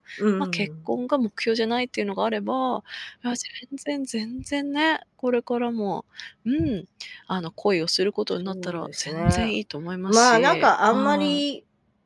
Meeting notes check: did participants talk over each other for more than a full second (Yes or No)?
Yes